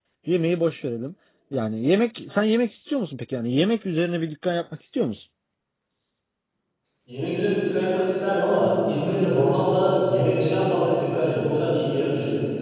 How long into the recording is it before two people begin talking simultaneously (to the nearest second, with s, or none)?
none